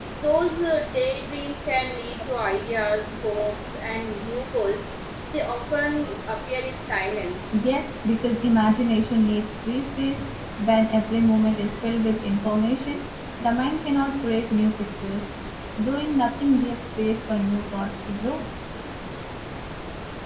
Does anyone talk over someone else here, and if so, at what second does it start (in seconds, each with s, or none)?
none